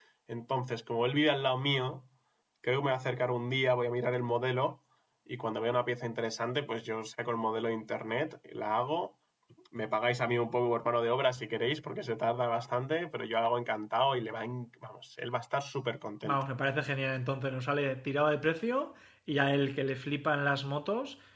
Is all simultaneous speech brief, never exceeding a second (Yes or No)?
Yes